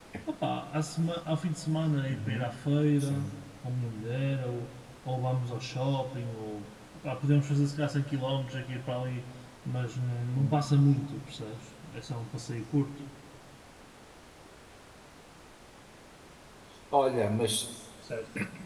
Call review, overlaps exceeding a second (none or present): none